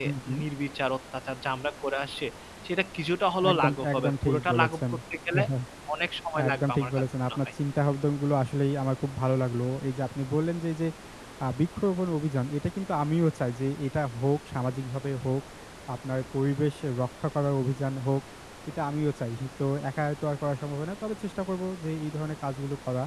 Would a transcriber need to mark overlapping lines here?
Yes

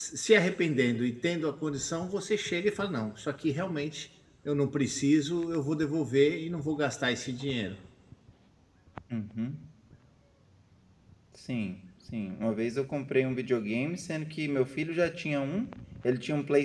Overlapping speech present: No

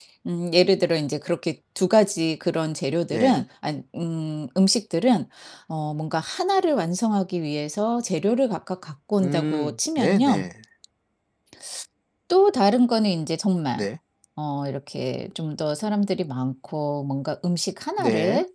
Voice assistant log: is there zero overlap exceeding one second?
No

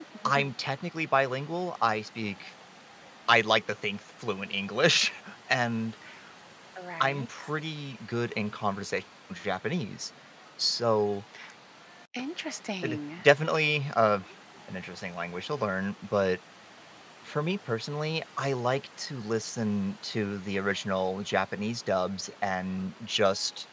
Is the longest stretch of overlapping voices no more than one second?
Yes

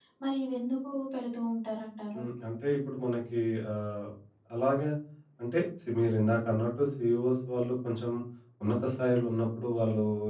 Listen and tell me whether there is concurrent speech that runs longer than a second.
No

